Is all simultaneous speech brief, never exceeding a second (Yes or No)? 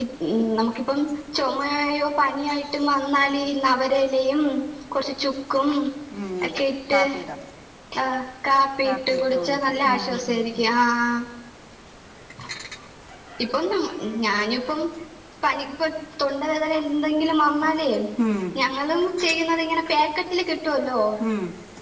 No